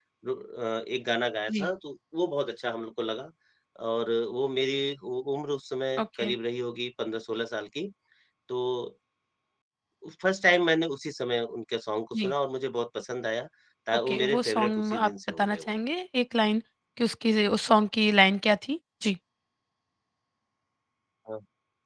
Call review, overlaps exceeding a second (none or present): present